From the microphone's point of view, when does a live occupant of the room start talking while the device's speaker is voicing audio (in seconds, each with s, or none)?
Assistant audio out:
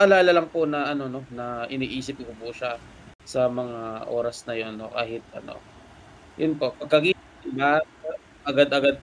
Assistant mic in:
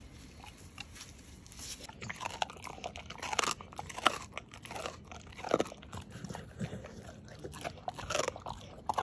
none